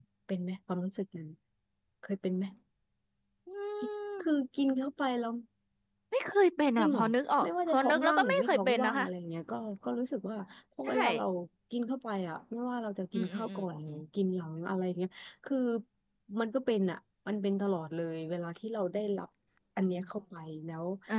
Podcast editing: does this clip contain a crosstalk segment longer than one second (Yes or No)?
Yes